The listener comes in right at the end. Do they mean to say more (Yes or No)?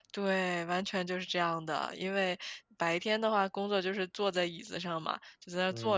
No